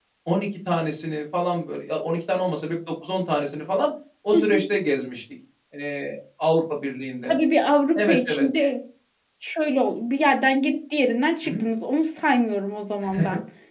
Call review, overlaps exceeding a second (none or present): none